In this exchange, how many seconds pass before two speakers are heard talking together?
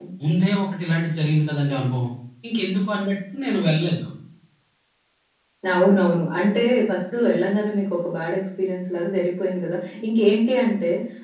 none

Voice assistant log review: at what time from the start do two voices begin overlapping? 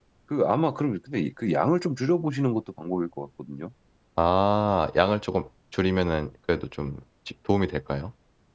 none

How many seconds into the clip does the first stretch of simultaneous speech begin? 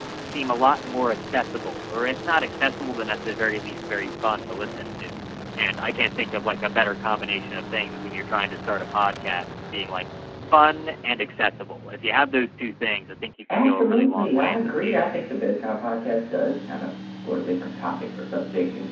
13.5 s

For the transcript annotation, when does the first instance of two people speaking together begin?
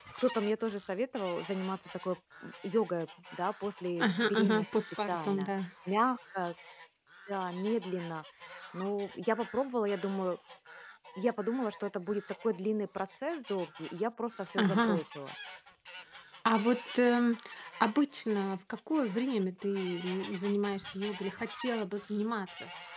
4.0 s

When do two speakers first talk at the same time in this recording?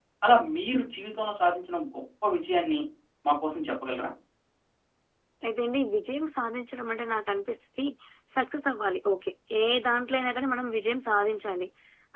none

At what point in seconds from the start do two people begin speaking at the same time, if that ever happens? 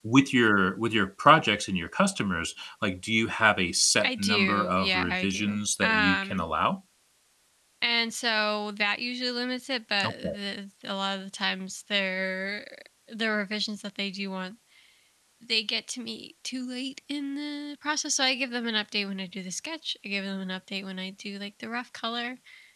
4.0 s

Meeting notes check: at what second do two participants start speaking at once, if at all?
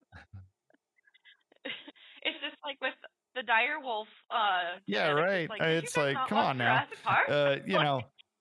4.9 s

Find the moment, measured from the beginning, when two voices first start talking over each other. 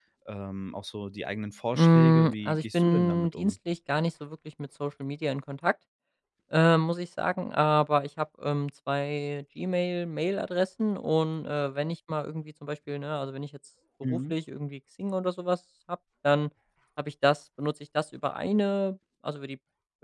1.7 s

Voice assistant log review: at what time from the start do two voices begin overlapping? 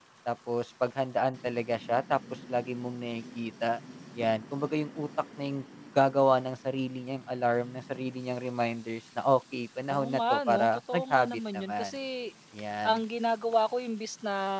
9.9 s

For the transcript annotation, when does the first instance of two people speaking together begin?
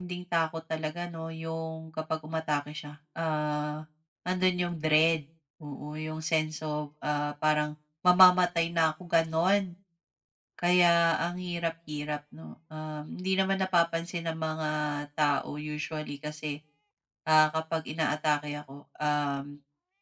none

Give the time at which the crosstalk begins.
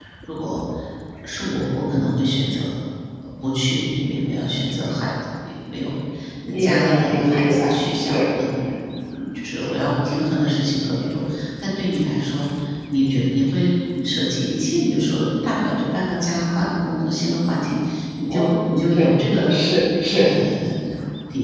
6.5 s

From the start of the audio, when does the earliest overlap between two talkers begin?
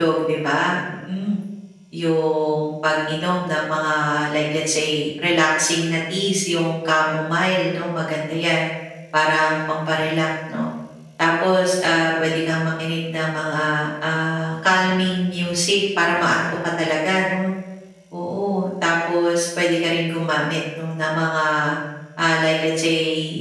none

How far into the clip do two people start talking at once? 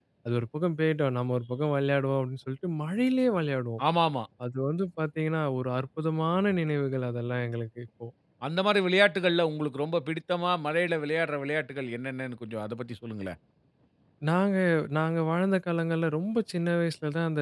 none

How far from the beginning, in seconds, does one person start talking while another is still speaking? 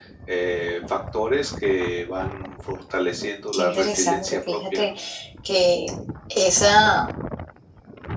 3.5 s

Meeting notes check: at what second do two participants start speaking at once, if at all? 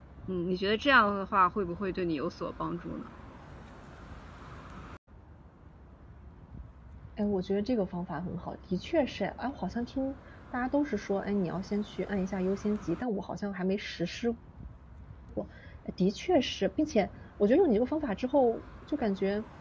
none

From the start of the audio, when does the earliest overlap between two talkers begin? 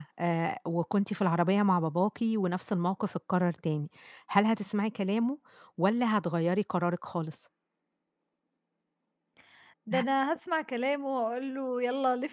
none

